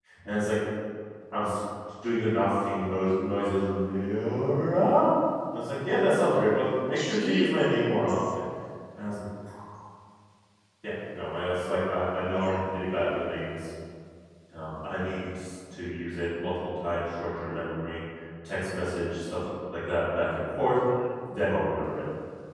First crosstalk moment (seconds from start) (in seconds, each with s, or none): 7.0 s